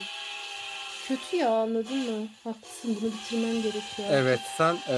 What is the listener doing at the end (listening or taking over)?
taking over